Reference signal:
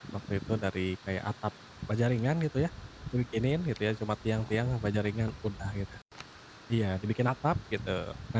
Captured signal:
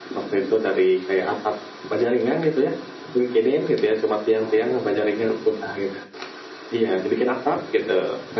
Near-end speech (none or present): none